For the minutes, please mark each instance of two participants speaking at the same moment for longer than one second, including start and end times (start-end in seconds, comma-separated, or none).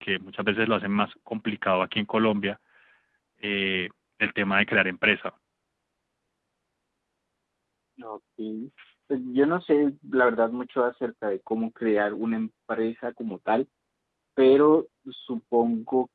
none